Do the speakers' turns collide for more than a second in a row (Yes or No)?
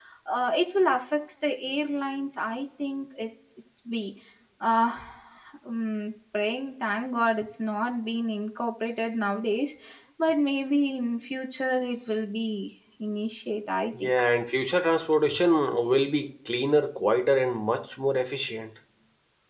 No